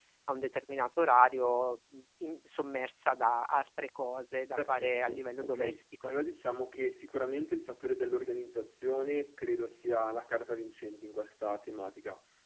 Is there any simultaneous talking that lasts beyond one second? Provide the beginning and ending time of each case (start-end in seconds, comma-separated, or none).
4.6-6.1